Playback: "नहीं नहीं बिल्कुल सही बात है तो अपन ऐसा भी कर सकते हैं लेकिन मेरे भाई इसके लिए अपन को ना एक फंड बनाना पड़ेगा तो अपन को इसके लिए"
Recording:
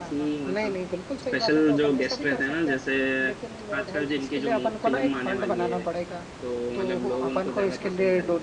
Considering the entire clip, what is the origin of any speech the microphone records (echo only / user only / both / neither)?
both